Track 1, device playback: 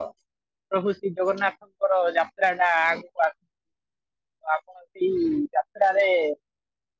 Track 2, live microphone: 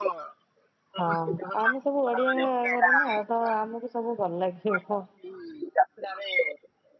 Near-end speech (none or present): present